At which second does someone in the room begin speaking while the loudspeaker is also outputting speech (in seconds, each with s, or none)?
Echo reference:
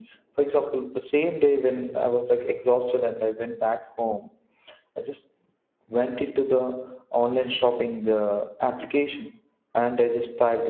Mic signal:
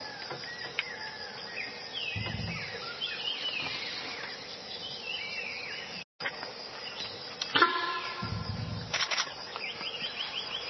none